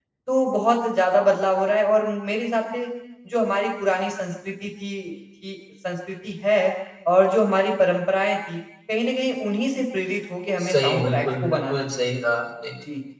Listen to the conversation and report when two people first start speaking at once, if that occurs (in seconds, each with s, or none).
10.6 s